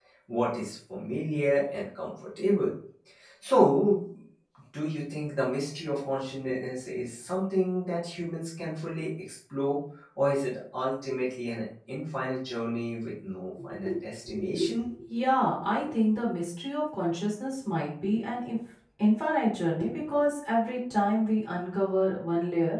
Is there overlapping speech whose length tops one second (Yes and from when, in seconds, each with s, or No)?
No